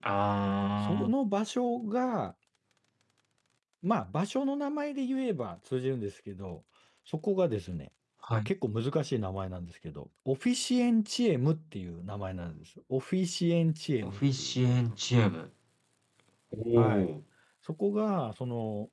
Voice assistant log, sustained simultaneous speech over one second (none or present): none